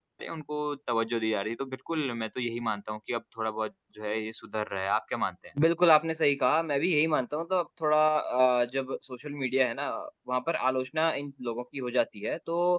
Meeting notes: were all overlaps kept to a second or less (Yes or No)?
Yes